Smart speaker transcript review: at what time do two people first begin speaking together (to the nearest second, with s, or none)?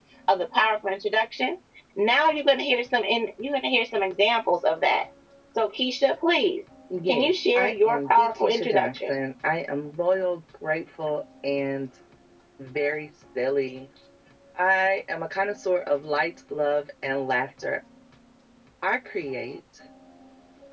7 s